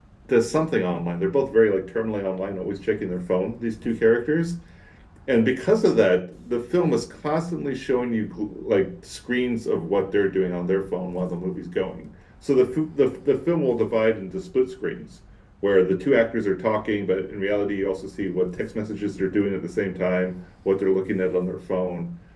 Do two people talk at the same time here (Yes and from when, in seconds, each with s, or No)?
No